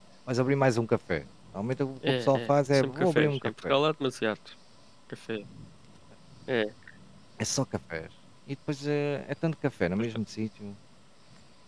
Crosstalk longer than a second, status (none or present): present